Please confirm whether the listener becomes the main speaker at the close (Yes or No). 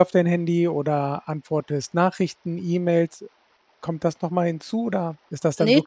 Yes